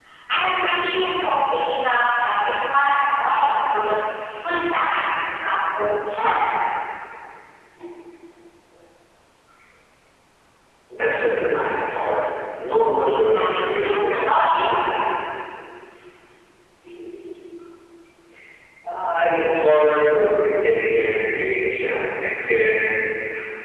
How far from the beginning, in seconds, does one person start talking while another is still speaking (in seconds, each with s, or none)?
13.1 s